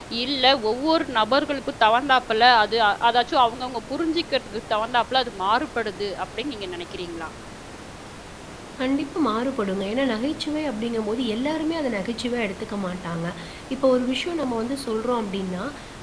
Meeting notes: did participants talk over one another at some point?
No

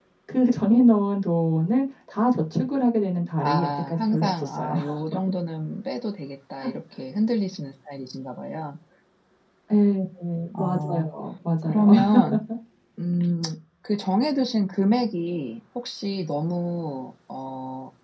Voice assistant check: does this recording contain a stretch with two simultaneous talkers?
Yes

